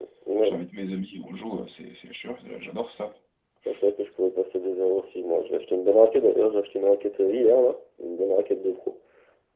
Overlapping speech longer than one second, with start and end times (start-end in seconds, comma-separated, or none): none